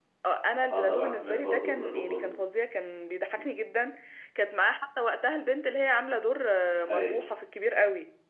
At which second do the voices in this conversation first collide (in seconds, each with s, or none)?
0.7 s